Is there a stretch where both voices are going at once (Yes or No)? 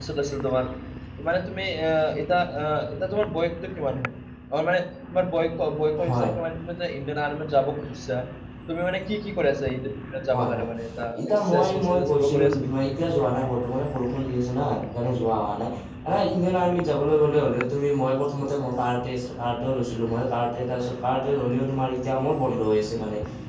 Yes